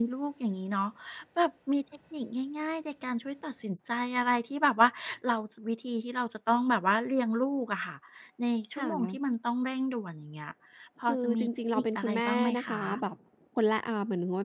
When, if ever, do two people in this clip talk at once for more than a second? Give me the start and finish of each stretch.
11.1-12.7

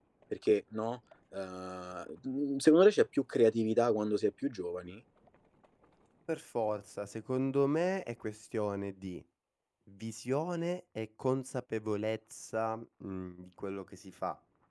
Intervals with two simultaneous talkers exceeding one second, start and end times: none

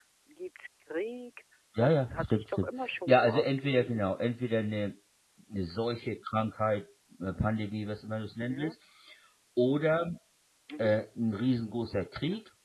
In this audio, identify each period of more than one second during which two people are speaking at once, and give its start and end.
1.8-4.0

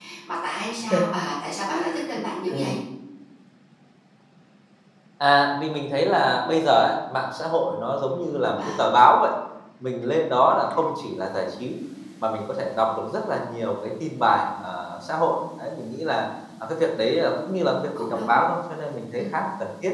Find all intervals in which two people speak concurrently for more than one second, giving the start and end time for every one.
none

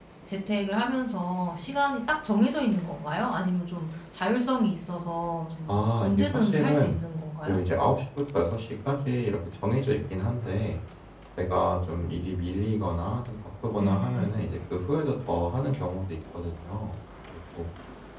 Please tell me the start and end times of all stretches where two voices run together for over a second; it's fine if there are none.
5.7-7.0

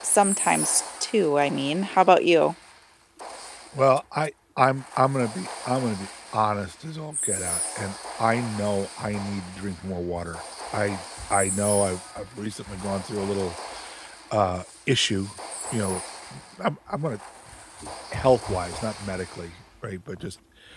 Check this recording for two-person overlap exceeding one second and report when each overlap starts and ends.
none

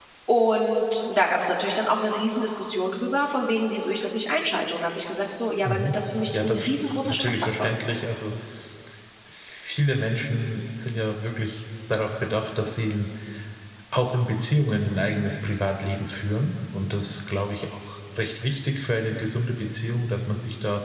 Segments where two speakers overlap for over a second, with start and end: 6.3-7.8

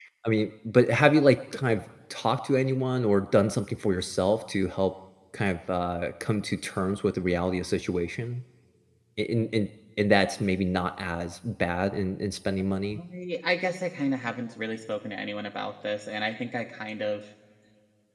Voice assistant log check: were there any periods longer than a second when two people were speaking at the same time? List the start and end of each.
none

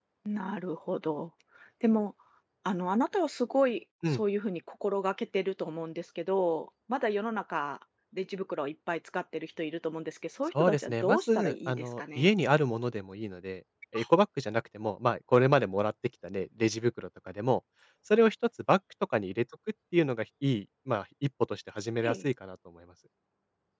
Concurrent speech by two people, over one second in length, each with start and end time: 10.5-12.3

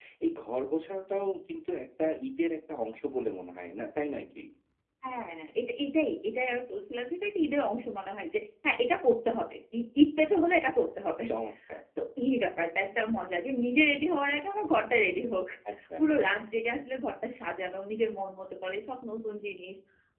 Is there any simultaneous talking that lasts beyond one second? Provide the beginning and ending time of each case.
none

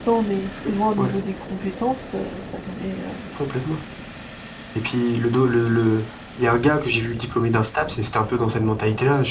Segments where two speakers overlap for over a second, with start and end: none

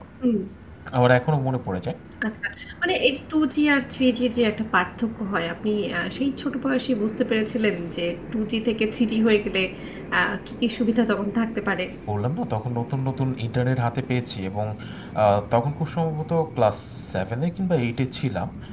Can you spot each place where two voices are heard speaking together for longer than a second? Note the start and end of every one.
none

